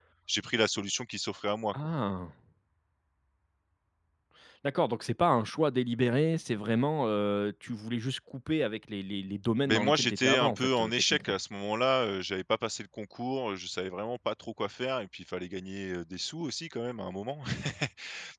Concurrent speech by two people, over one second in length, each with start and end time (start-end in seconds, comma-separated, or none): 9.6-11.4